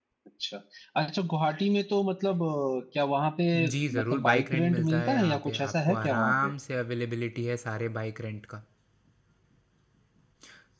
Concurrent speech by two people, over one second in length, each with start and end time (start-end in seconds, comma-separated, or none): 4.0-6.5